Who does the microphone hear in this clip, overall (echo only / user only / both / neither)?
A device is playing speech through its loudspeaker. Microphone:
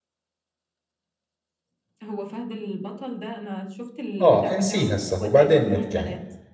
both